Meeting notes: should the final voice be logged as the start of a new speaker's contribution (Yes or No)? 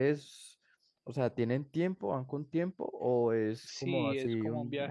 Yes